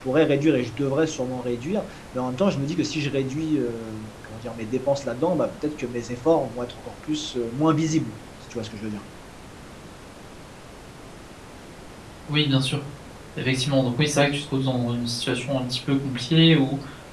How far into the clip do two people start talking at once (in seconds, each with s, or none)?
none